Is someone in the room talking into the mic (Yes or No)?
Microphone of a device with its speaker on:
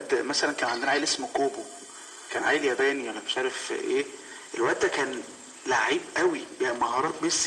No